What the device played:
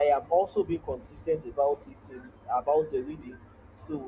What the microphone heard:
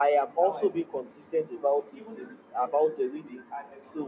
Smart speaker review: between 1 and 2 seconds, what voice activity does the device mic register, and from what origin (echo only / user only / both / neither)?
both